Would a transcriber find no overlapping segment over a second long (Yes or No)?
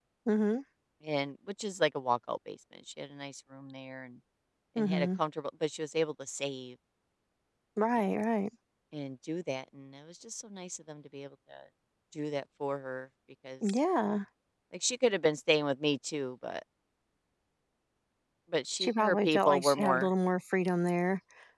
No